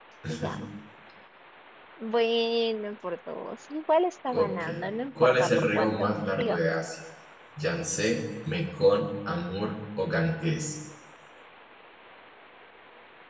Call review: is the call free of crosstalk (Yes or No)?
No